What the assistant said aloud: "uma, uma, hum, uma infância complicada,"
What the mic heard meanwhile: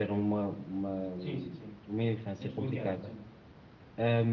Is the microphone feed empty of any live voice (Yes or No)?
No